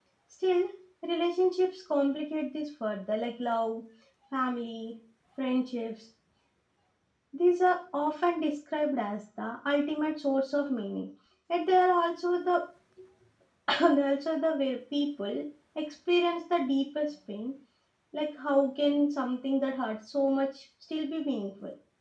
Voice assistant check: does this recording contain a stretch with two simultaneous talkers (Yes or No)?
No